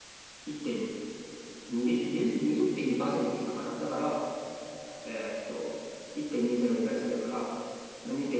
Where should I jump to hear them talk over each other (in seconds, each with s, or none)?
none